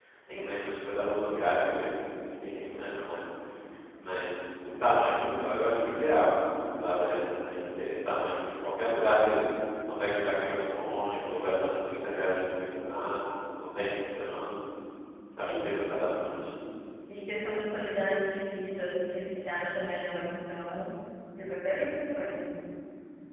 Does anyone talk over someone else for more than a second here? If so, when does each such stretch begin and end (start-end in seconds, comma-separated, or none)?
none